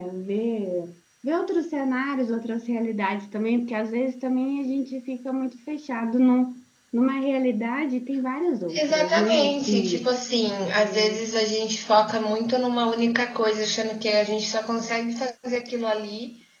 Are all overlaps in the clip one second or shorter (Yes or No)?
No